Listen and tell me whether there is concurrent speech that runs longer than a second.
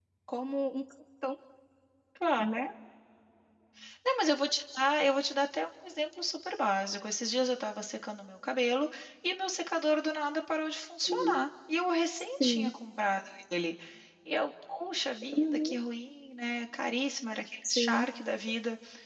No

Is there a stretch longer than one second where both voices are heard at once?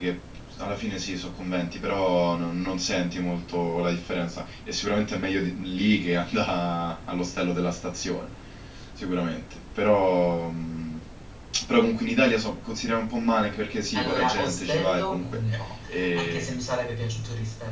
Yes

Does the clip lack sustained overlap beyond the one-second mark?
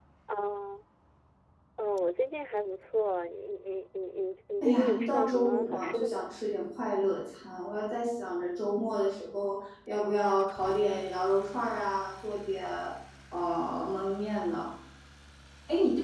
No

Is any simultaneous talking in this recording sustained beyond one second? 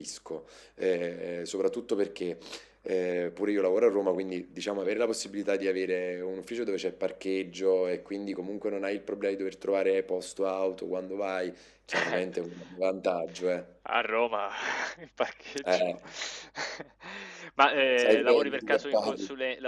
Yes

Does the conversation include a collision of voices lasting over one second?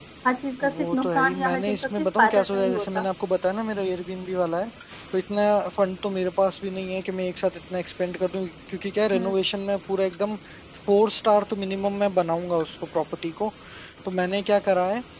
Yes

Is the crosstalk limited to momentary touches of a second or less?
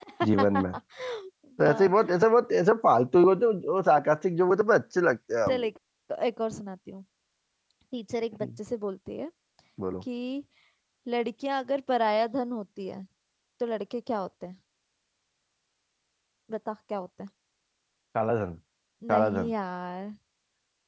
Yes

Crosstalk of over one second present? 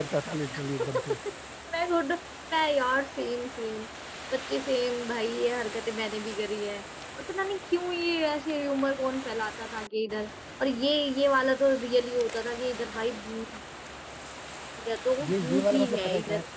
Yes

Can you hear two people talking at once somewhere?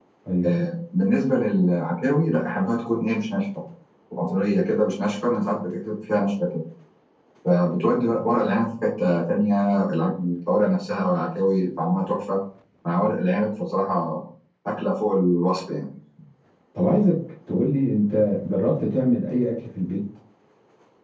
No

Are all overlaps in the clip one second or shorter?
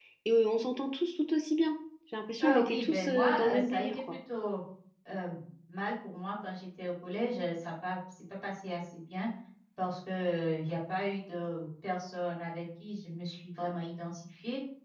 No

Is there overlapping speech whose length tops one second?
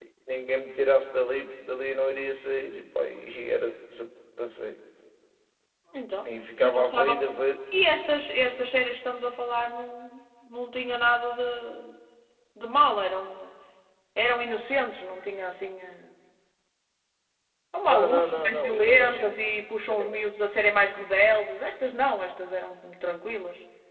Yes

